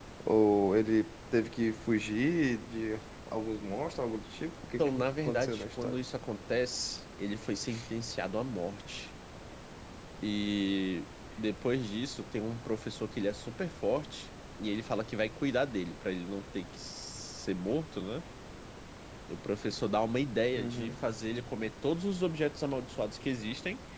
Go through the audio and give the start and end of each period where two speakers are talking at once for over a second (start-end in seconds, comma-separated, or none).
4.8-6.0